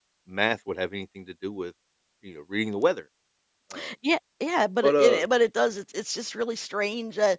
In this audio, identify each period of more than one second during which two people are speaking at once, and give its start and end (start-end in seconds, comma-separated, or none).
none